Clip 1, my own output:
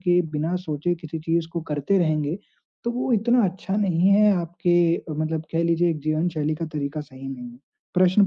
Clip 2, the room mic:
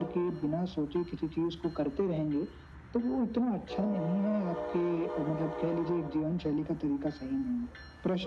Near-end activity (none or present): none